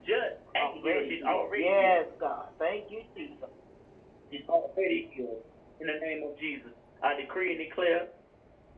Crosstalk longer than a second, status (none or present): present